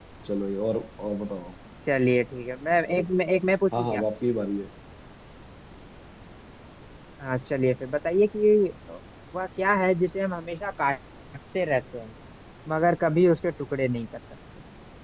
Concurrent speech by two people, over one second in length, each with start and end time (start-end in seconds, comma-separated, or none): none